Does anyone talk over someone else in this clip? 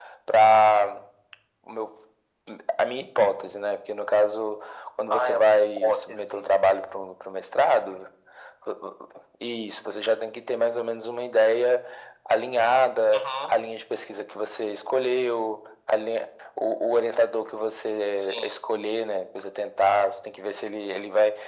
Yes, from 5.1 s

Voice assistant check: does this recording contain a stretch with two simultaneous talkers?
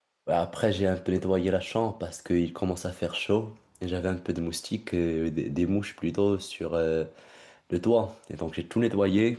No

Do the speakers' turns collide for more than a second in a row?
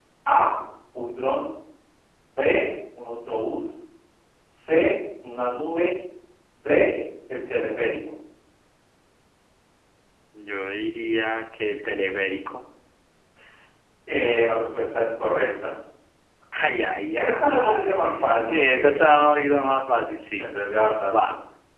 Yes, from 17.2 s

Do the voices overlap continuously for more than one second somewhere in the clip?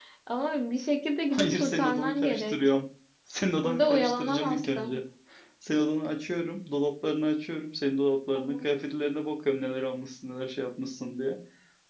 Yes, from 1.3 s

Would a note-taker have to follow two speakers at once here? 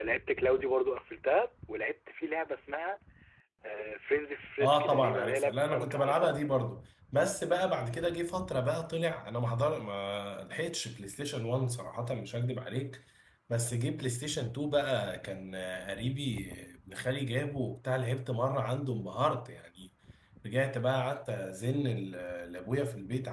Yes, from 4.6 s

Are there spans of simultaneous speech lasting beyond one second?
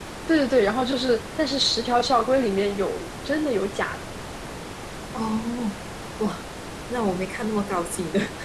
No

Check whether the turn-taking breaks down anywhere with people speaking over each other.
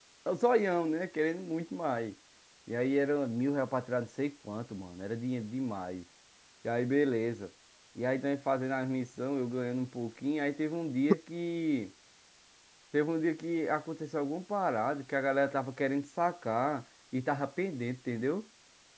No

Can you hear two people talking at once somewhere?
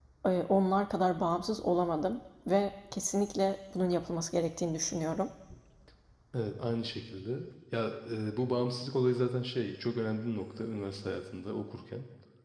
No

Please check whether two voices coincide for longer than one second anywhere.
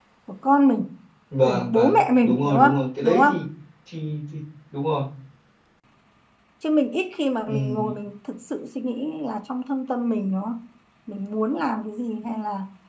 Yes, from 1.4 s

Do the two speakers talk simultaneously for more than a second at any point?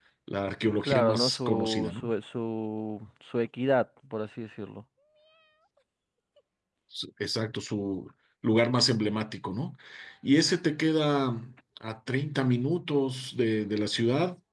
Yes, from 0.8 s

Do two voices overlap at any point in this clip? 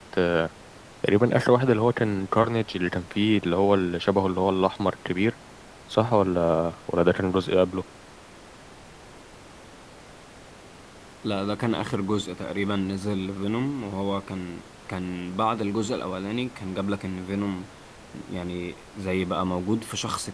No

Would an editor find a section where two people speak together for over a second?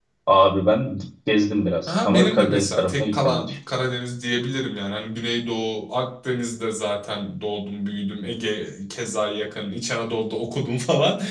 Yes, from 1.9 s

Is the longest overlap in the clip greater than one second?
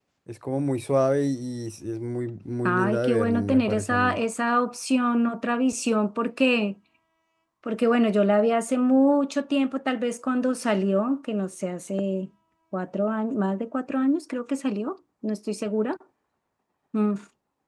Yes, from 2.6 s

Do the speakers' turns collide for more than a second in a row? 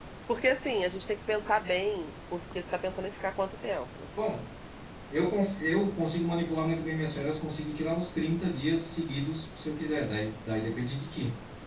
No

